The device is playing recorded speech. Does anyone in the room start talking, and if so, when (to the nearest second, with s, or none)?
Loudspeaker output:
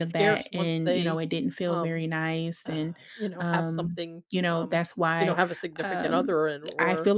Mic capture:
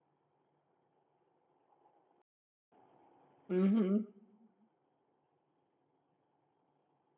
3 s